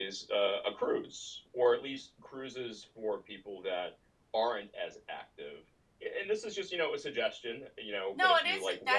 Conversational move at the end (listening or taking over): taking over